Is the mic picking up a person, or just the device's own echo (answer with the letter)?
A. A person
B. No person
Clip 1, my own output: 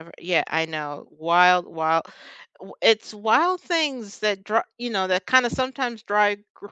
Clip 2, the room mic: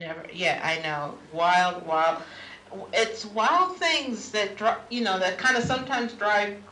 B